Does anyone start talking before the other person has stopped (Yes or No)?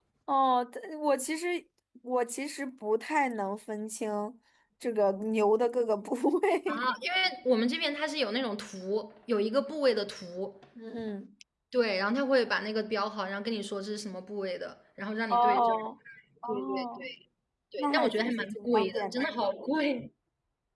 Yes